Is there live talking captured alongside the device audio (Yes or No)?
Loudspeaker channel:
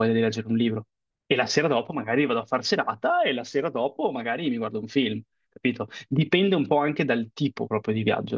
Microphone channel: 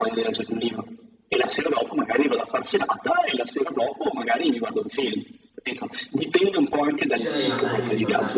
Yes